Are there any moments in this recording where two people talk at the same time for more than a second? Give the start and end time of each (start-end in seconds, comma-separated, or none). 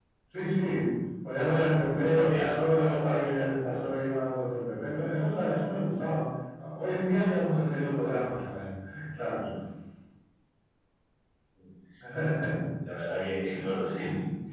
1.4-4.0